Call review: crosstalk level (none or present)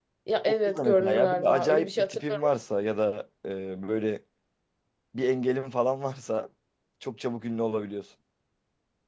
present